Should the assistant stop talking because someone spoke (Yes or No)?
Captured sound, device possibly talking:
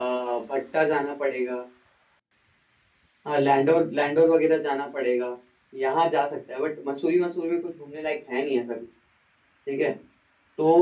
No